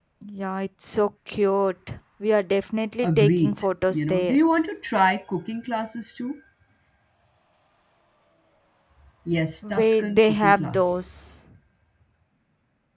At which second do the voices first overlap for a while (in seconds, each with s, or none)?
3.0 s